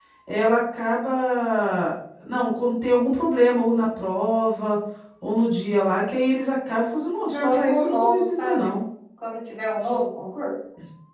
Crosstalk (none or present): present